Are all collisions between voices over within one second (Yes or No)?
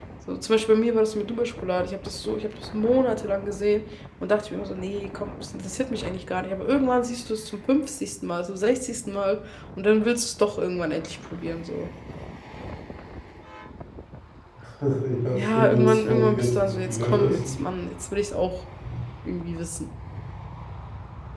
No